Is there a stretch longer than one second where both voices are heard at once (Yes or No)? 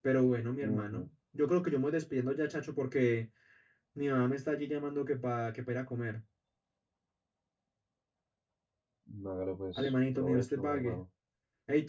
Yes